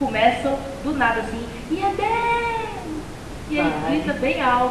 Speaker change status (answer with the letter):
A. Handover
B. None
B